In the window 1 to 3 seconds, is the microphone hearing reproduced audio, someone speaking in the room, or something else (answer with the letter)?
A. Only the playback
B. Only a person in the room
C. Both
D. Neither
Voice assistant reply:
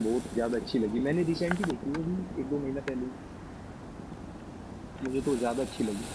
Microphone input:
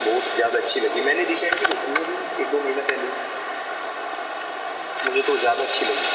A